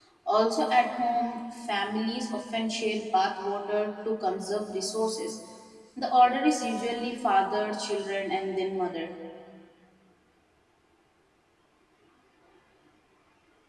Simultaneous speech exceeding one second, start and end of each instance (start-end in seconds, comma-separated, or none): none